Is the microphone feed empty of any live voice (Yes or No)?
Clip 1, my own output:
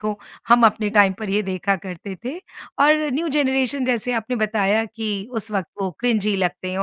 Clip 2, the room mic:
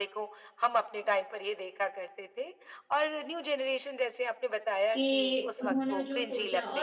No